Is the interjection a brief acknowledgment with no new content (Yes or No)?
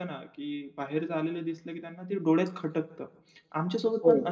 Yes